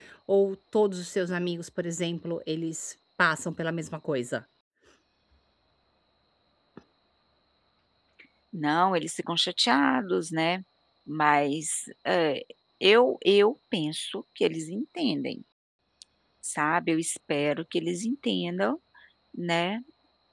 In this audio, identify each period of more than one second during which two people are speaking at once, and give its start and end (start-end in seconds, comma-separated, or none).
none